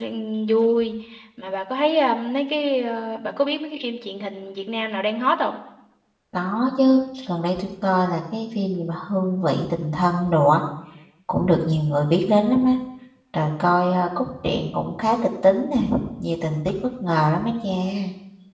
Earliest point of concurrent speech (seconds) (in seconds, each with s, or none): none